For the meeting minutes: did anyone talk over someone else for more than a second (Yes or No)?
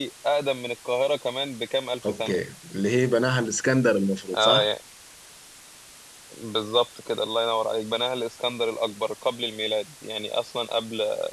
No